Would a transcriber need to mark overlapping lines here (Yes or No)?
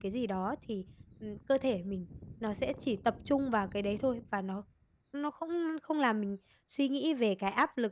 No